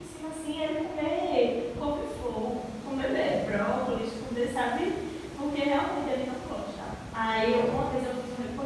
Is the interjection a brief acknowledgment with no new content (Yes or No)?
Yes